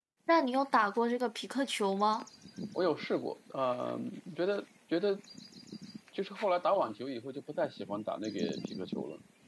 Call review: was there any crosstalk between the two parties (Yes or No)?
No